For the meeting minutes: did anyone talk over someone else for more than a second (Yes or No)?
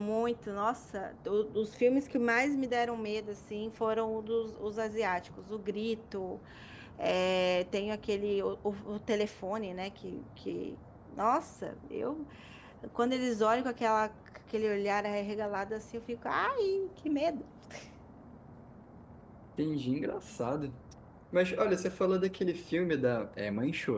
No